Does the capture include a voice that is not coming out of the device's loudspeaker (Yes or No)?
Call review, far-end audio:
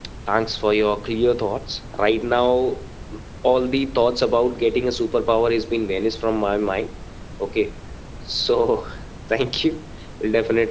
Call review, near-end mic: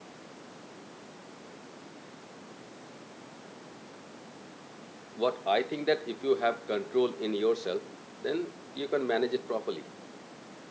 Yes